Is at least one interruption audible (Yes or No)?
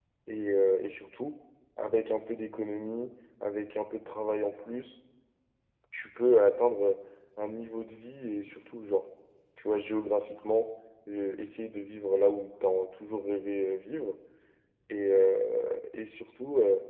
No